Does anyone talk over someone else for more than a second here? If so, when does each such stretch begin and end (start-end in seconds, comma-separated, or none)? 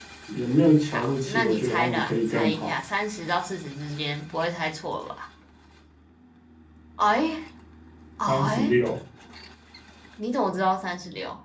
0.9-2.8